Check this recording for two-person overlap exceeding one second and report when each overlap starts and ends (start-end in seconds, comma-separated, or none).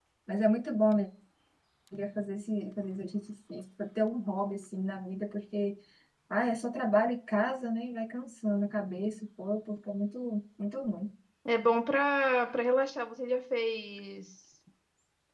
none